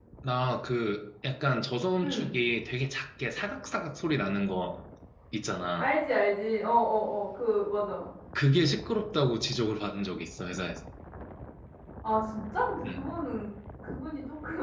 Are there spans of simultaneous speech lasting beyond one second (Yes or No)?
No